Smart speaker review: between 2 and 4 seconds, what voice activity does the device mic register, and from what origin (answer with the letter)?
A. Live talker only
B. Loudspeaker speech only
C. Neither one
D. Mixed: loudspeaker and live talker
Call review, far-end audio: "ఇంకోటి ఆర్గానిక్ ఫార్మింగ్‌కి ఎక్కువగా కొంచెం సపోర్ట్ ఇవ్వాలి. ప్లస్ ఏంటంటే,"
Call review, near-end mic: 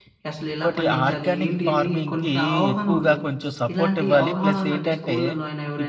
D